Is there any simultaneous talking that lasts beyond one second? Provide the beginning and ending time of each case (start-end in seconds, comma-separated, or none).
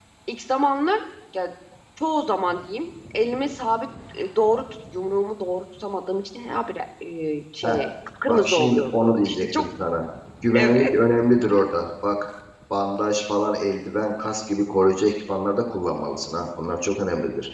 8.3-9.7